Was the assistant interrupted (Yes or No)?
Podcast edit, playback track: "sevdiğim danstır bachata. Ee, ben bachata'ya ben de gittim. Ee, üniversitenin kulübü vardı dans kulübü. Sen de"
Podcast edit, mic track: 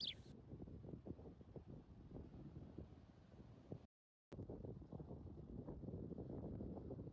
No